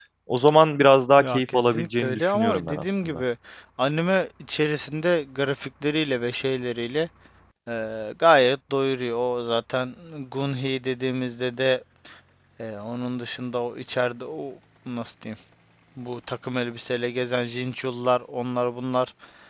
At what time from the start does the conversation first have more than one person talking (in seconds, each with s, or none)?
1.2 s